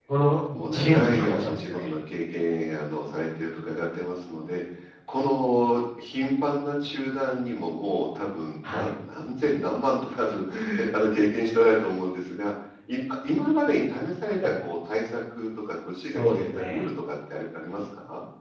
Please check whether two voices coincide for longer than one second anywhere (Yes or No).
Yes